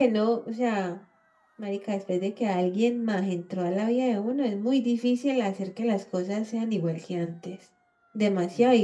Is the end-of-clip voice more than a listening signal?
No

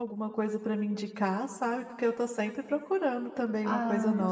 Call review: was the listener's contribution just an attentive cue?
No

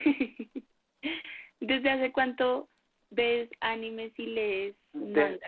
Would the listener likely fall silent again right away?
No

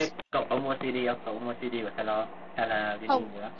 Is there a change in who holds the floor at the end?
Yes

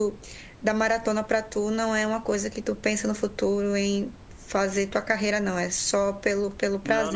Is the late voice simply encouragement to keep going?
No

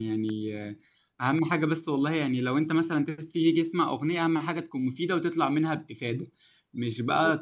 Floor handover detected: No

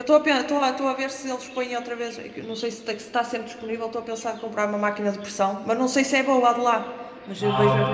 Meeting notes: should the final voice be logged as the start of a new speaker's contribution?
Yes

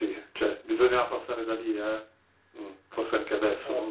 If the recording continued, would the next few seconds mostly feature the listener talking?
Yes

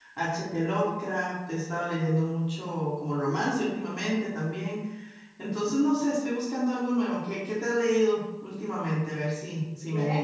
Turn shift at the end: Yes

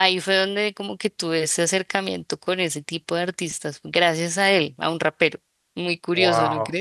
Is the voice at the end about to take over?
Yes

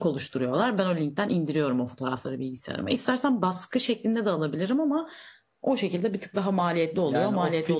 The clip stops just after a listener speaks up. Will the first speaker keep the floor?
No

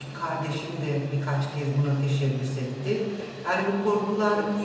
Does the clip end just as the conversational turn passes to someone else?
No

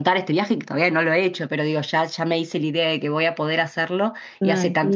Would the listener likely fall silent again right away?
Yes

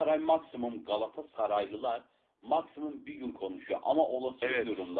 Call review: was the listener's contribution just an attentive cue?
Yes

